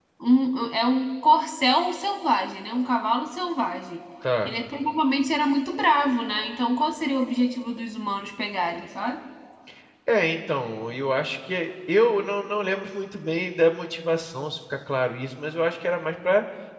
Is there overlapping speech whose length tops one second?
No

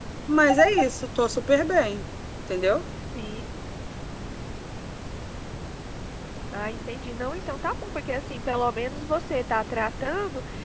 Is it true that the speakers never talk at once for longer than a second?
Yes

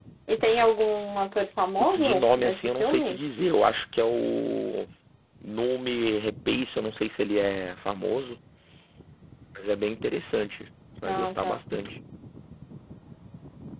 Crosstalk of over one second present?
Yes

